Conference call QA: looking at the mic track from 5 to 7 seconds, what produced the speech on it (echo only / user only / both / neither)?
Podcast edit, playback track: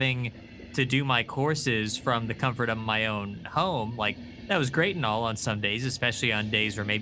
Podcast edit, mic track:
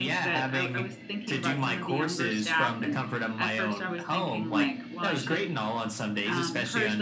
both